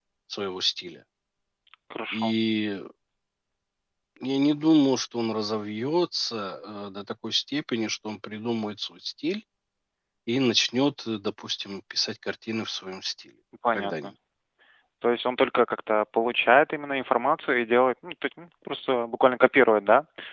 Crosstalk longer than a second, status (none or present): none